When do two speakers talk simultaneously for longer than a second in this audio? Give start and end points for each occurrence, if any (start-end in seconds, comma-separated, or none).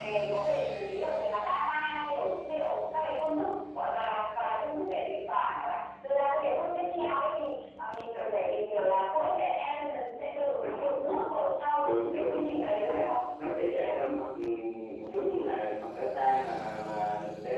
11.8-13.1